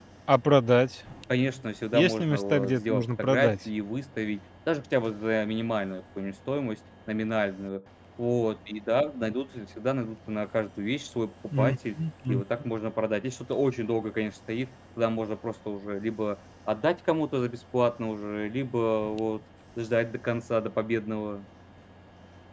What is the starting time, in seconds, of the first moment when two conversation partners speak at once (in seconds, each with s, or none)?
1.9 s